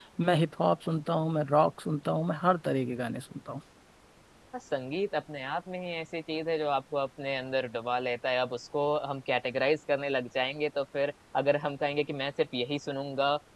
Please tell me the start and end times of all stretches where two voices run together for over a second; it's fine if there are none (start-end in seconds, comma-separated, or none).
none